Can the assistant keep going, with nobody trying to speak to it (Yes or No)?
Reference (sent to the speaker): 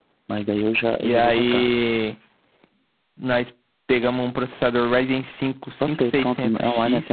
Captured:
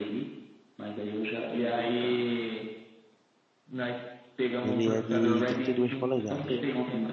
No